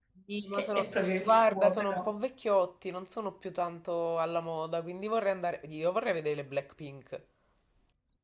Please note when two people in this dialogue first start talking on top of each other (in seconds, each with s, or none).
0.5 s